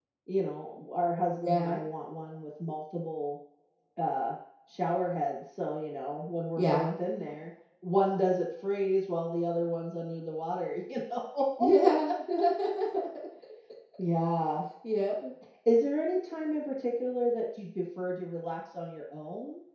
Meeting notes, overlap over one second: none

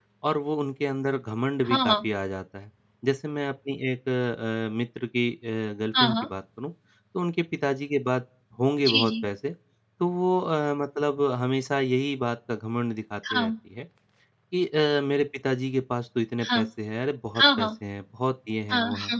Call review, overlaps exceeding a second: none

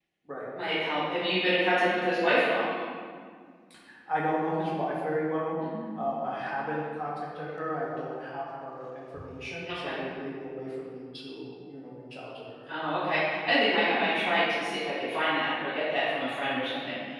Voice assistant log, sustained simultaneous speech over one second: none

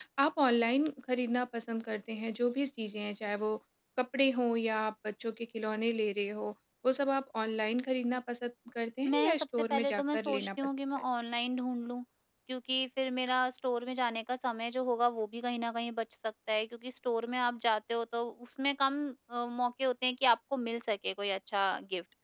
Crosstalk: present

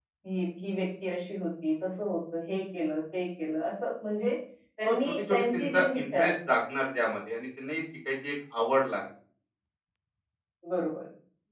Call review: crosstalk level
present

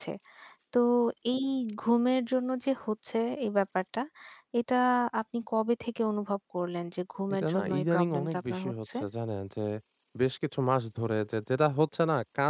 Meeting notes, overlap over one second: present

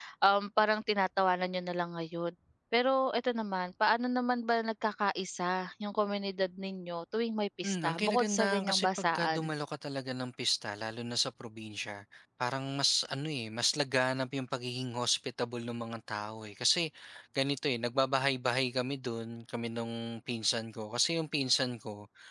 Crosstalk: present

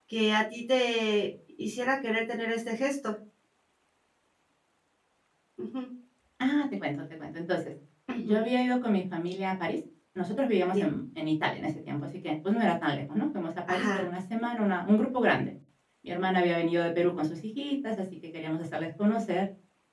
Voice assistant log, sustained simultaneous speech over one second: none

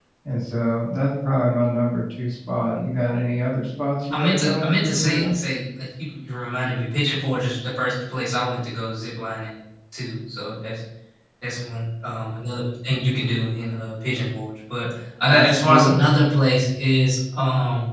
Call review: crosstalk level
present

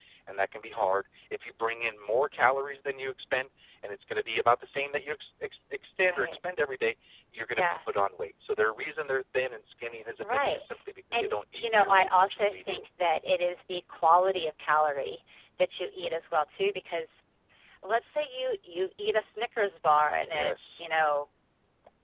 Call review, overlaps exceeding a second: present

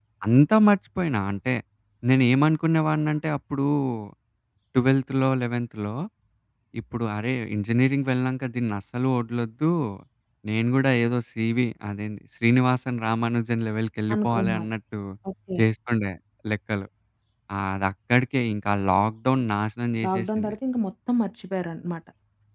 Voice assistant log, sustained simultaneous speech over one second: none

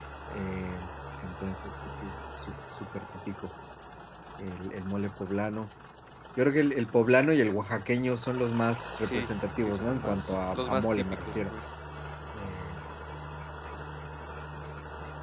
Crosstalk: present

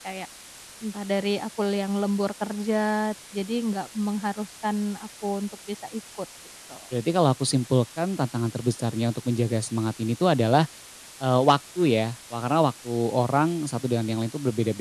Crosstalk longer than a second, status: none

